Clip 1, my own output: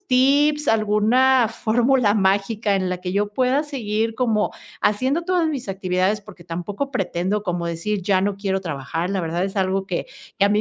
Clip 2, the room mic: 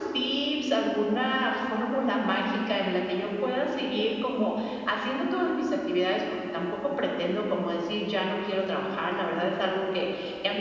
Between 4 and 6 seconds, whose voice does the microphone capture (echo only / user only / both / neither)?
echo only